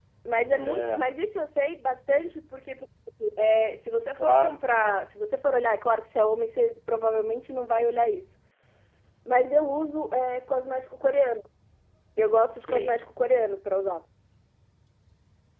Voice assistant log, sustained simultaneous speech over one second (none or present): none